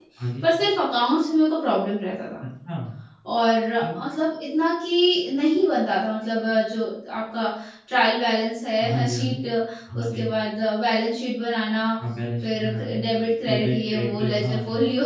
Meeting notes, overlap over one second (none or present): present